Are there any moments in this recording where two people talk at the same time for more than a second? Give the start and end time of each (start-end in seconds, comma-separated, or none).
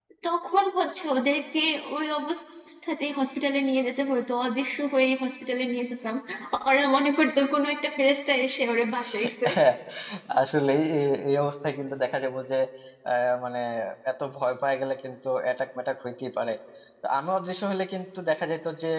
none